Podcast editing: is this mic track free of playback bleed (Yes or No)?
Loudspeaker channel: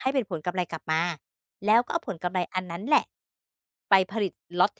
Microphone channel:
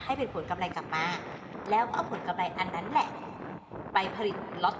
No